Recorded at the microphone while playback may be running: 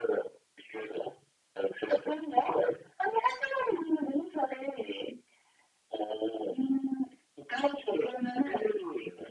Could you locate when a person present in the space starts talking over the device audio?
none

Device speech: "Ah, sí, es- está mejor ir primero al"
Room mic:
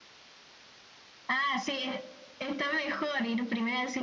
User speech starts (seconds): none

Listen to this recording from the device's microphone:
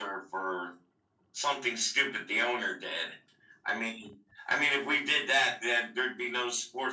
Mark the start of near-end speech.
none

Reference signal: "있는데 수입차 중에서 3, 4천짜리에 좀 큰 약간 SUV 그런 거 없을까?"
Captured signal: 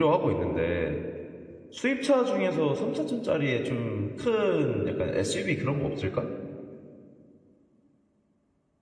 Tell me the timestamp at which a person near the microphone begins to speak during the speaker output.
none

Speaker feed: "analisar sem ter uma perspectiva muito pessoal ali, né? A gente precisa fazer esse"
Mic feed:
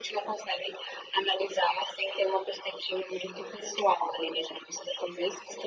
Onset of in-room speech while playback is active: none

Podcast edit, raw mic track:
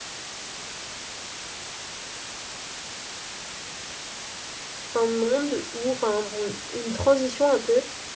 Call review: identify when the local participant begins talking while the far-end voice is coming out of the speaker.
4.9 s

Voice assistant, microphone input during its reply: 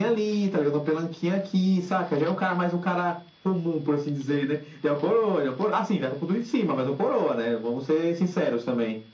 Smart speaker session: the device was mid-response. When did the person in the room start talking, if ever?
none

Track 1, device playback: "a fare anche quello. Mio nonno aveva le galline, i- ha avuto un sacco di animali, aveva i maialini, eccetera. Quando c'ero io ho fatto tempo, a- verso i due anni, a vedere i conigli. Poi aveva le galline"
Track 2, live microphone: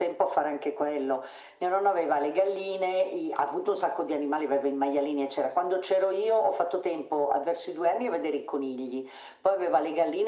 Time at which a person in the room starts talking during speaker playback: none

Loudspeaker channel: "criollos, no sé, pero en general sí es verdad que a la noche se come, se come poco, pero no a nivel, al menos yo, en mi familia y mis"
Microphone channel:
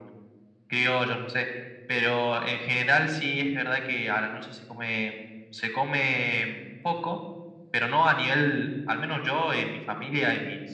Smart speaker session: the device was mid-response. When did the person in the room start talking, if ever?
none

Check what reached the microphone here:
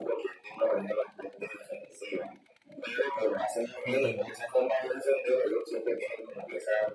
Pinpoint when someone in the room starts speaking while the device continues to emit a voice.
3.8 s

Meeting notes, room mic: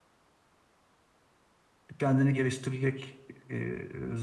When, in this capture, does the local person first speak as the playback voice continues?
2.0 s

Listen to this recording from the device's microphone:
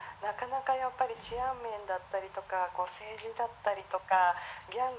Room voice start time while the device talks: none

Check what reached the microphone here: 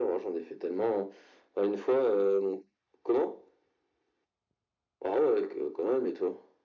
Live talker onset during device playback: none

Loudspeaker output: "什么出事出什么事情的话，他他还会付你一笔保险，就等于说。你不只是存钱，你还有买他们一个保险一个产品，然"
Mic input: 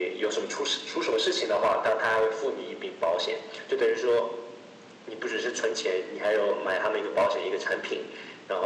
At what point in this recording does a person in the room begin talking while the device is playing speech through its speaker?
none

